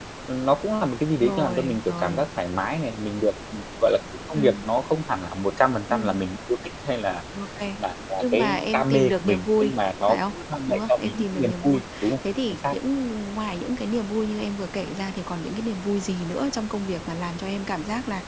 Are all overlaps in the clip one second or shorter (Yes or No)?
No